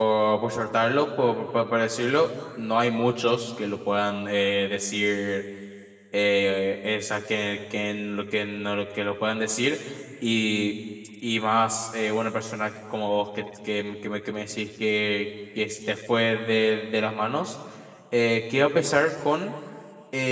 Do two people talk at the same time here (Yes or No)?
No